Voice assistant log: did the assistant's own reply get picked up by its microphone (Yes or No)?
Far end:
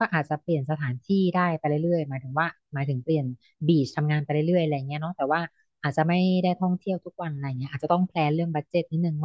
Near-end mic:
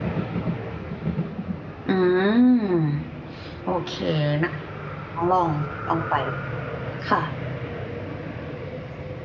No